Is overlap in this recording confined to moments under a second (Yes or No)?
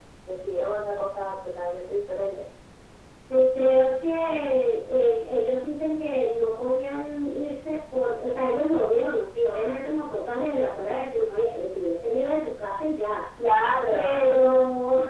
Yes